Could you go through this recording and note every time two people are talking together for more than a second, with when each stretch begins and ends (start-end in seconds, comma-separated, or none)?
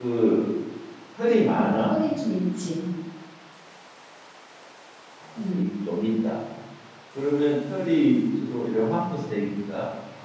none